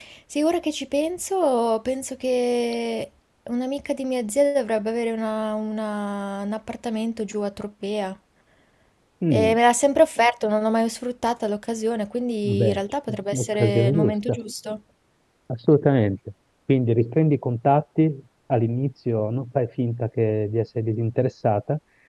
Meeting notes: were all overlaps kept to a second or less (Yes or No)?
No